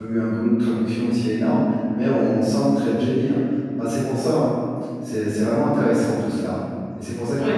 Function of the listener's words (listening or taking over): taking over